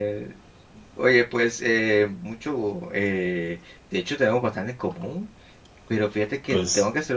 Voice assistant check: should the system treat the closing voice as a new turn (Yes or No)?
No